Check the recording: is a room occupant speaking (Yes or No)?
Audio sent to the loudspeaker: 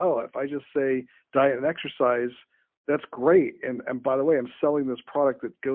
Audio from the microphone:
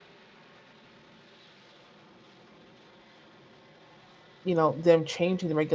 Yes